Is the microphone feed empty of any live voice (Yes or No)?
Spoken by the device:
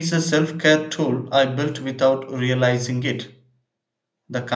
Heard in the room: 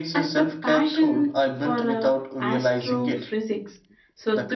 No